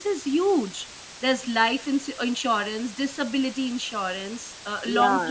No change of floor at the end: No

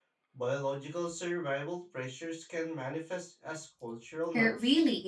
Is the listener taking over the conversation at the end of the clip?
Yes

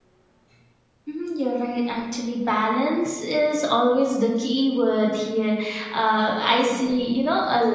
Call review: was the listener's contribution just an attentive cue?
Yes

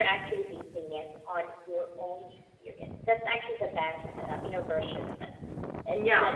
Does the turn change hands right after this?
Yes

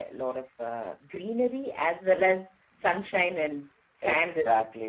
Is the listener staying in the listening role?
No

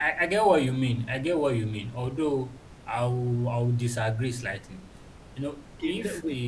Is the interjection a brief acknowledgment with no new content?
No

